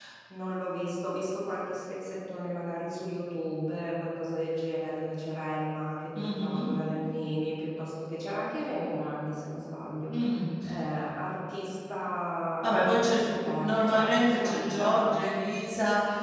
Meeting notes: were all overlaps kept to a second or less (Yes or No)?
No